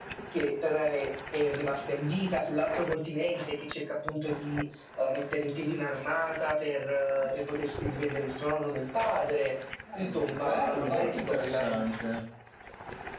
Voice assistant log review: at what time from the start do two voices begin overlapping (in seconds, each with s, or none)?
9.9 s